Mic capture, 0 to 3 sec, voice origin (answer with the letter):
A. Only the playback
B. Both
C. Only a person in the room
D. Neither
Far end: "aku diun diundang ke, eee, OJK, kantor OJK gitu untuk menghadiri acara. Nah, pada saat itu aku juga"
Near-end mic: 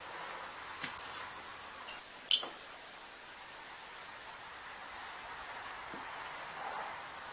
D